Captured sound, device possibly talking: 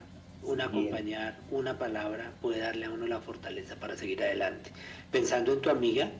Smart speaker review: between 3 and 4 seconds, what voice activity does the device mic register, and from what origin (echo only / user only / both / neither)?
echo only